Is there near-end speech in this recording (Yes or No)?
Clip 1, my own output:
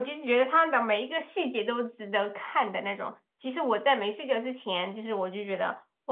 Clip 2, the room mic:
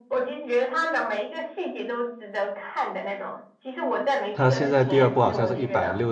Yes